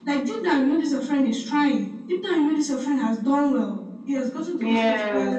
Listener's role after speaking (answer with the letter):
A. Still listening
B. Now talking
A